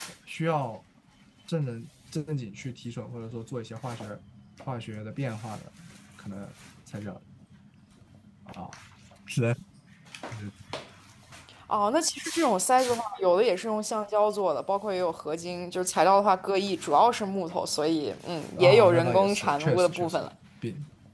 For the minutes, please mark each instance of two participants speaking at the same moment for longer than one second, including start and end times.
18.6-20.2

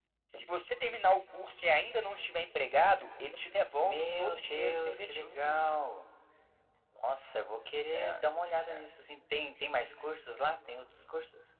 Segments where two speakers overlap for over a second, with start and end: 3.8-5.6

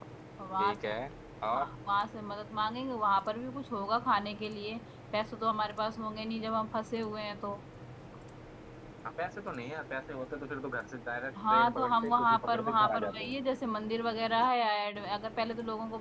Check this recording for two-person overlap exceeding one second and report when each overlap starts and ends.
11.5-13.3

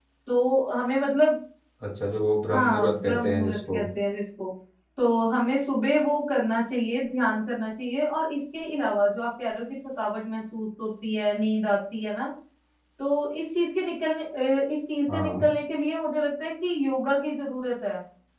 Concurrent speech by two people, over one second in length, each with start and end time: 2.5-3.8

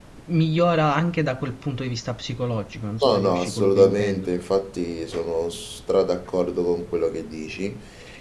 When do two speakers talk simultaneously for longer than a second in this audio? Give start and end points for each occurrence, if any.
3.0-4.3

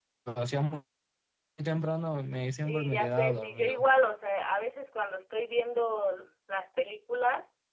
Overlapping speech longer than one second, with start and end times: 2.6-3.8

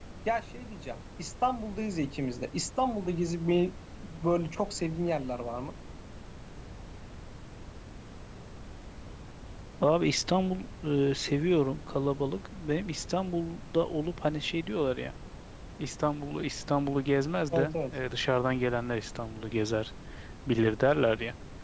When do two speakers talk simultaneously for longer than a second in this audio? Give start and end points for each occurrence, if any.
none

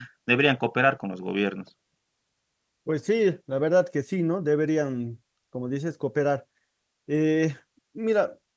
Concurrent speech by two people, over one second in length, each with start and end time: none

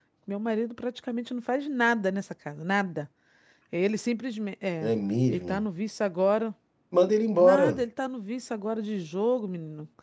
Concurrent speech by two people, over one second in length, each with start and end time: none

